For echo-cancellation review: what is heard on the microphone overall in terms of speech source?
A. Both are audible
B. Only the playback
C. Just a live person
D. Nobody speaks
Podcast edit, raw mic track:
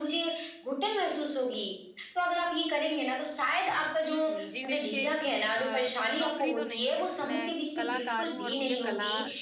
A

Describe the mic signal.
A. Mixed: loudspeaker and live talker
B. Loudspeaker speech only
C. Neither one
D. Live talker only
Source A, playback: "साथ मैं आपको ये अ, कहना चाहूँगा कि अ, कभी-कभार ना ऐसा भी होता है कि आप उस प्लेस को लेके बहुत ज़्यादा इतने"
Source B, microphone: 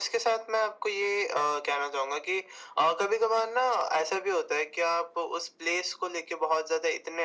B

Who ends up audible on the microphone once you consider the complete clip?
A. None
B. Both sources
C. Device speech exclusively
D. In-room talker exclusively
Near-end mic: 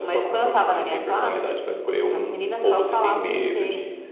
C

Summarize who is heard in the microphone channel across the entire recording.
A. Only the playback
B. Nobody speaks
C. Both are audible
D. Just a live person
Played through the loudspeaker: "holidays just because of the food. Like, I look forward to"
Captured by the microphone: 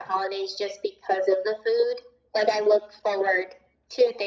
A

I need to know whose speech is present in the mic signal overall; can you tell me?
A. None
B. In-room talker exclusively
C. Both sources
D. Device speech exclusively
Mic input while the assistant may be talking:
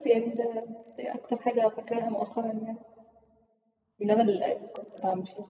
D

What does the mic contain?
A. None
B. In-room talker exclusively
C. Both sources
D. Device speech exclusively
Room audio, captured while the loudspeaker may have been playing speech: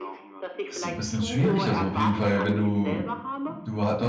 C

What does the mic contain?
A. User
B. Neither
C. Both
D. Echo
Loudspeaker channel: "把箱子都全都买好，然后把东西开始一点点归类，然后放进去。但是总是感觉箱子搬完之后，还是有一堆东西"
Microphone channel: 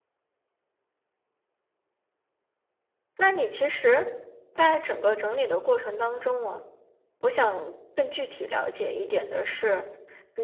A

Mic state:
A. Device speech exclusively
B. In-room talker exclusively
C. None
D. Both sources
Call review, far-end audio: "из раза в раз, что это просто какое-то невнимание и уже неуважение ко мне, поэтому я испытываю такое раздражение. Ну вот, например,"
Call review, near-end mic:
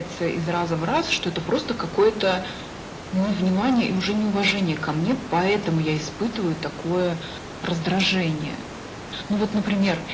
A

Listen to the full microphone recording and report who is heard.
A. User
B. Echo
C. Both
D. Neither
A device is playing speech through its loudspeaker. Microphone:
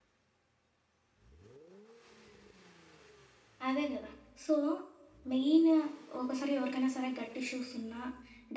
A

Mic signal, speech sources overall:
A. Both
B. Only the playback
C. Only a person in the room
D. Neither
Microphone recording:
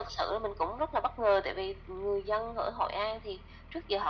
B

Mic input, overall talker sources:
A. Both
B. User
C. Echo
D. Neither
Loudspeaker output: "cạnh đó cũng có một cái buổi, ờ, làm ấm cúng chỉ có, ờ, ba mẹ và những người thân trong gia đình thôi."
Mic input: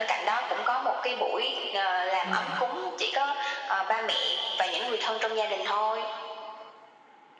A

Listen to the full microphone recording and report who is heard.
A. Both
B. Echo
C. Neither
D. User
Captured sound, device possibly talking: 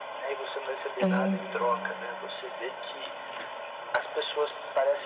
A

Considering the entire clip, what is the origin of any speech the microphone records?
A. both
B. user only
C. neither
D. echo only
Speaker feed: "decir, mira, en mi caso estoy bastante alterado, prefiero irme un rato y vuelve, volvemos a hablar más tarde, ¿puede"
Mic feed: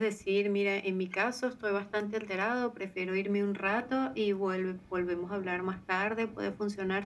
D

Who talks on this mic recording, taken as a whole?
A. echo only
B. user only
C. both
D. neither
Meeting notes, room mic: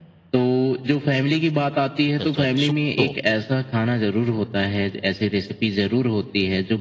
C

